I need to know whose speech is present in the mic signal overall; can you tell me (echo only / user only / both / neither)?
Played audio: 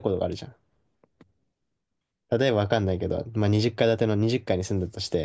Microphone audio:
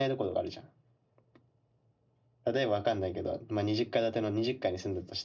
echo only